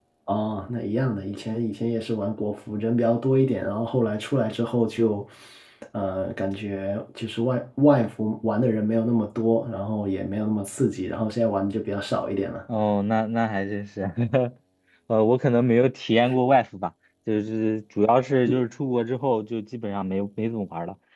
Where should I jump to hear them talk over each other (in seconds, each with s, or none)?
none